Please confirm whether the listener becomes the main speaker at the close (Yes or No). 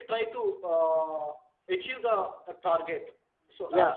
Yes